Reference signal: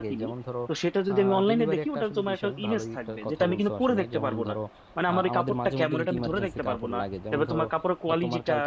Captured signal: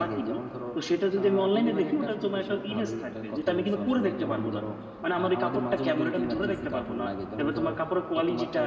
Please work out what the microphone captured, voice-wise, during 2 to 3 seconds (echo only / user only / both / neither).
echo only